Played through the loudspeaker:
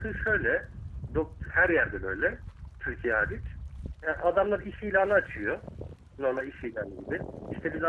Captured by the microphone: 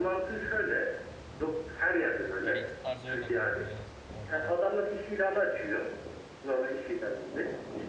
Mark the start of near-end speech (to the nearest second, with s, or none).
2 s